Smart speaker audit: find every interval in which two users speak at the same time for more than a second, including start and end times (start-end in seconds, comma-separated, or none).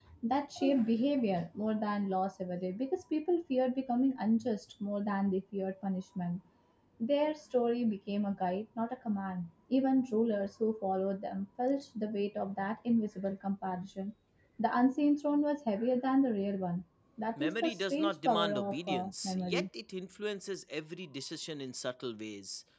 17.4-19.6